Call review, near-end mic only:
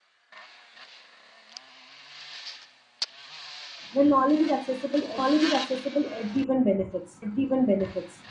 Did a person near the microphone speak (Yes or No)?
Yes